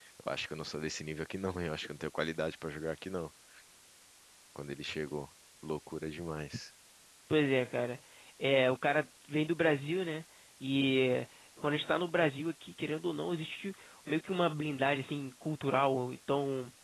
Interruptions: none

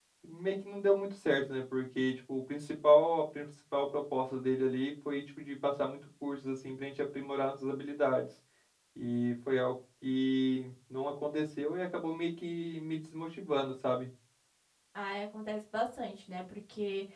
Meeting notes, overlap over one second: none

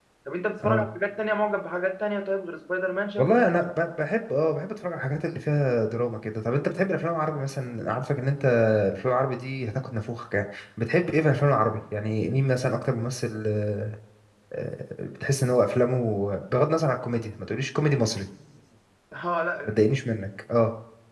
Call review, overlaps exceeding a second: none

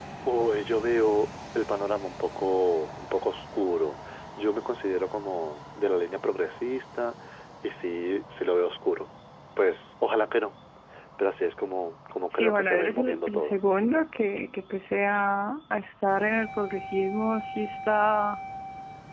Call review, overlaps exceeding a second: present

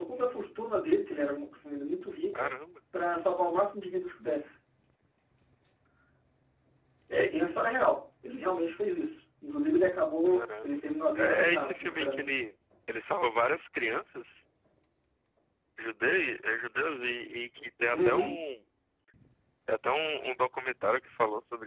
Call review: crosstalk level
present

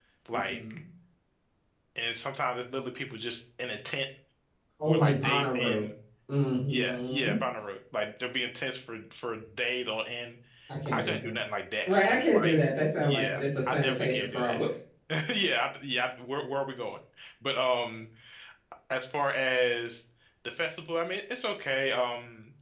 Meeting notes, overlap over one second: present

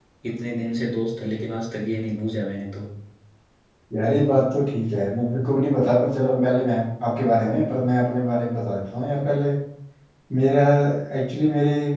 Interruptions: none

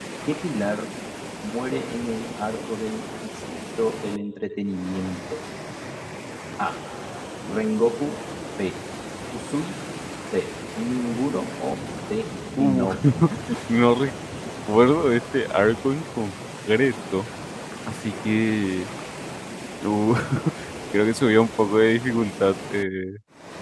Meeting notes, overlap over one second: none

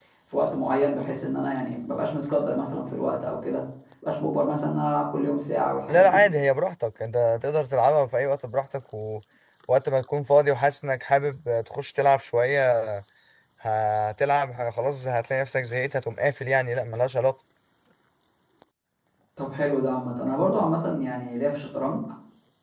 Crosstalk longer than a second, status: none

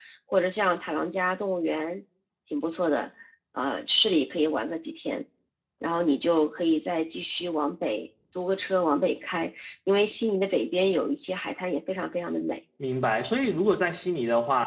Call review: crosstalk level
none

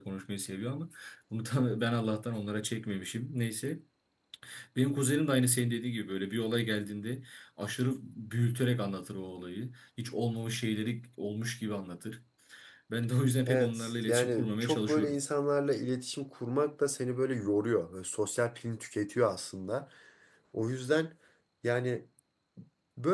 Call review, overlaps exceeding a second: present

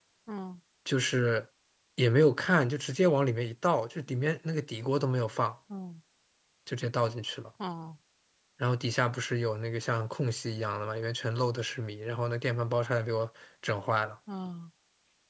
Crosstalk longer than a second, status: none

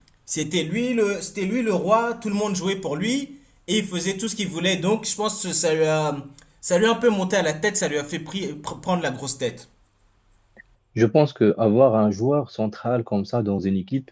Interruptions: none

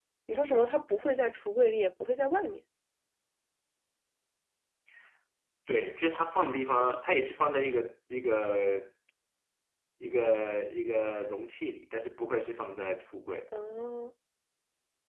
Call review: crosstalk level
none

